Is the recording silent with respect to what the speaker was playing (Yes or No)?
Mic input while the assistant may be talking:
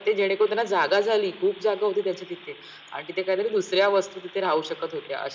No